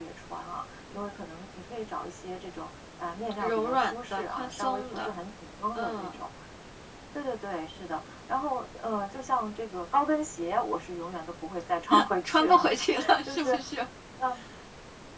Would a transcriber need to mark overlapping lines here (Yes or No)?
Yes